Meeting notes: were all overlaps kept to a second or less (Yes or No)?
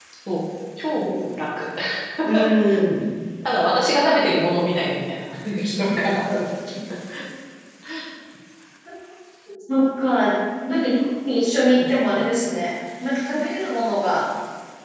Yes